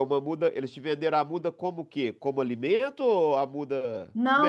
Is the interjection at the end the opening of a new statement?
Yes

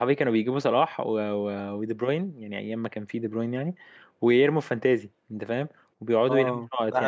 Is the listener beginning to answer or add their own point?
Yes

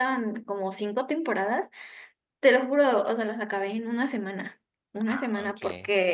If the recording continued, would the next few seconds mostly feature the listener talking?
No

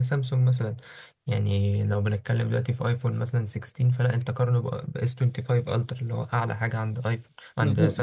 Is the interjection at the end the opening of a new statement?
Yes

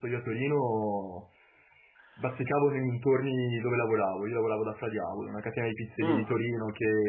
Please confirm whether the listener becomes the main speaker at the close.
No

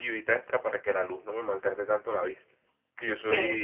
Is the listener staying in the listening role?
Yes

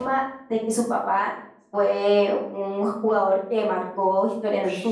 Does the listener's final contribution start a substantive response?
Yes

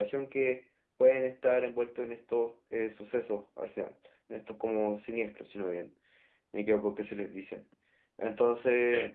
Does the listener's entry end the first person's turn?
No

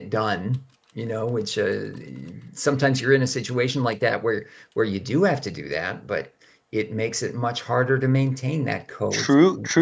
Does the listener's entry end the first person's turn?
Yes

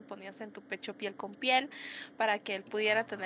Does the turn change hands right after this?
No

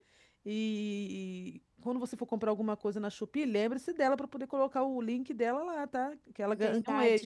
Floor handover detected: Yes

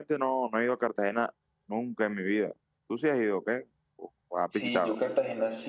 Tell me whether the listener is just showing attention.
No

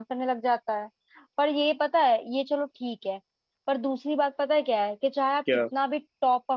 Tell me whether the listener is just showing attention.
Yes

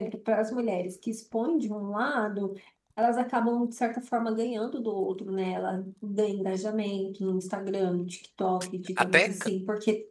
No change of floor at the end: Yes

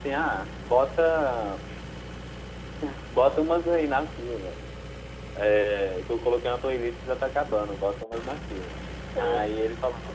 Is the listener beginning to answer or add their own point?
No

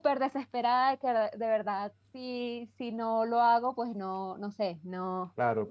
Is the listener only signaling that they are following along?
No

